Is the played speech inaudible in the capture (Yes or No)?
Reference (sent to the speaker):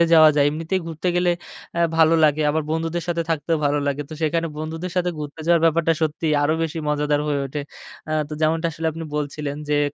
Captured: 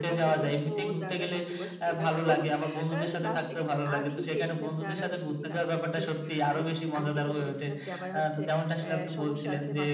No